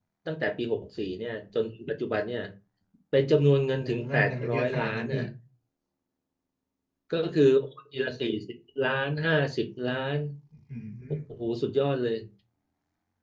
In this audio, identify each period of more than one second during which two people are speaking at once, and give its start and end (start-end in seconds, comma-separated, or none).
3.7-5.2